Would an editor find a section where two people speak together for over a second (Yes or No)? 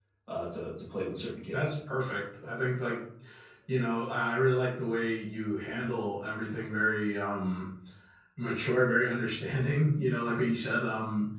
No